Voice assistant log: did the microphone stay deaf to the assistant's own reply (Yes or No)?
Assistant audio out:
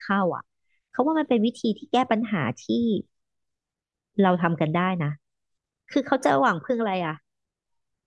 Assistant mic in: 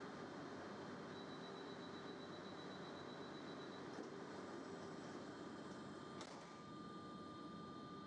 Yes